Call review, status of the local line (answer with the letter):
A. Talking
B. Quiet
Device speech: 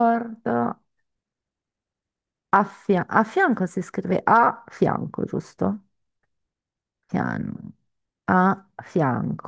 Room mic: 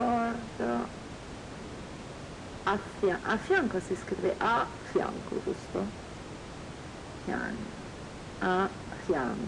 B